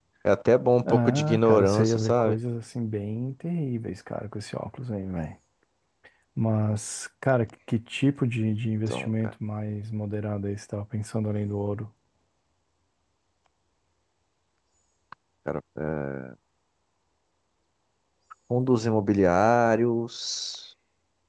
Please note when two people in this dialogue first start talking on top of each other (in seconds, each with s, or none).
0.8 s